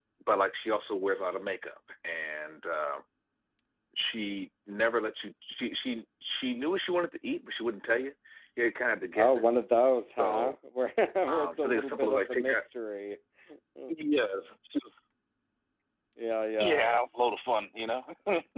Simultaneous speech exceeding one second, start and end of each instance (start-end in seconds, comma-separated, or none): 11.3-12.6